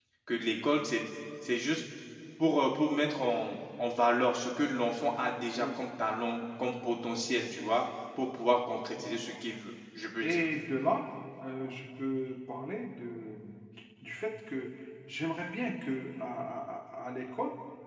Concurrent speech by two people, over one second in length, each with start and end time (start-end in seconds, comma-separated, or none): none